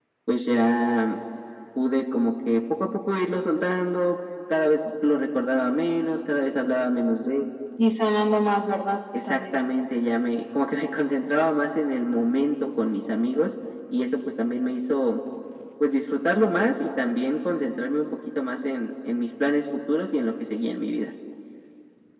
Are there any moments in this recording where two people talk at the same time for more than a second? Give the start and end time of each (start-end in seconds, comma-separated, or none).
none